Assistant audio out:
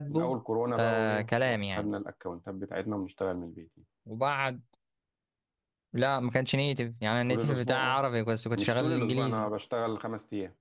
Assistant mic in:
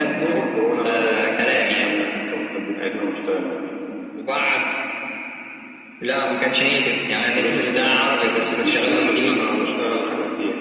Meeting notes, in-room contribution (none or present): present